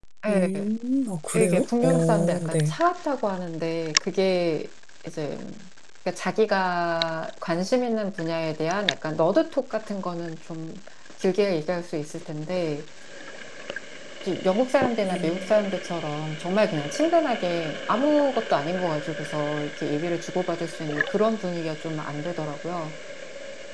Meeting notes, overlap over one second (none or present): present